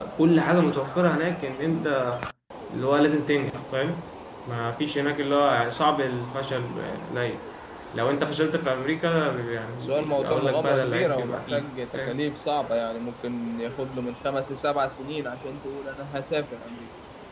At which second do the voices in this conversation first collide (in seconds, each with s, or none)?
9.7 s